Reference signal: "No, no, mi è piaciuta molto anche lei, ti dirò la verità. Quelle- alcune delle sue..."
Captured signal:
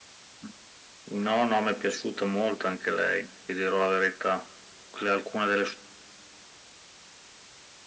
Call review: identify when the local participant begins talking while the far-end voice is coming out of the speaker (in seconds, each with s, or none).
none